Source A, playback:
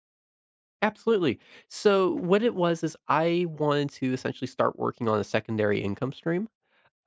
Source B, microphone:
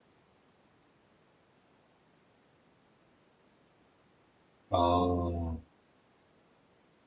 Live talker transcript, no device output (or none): Oh,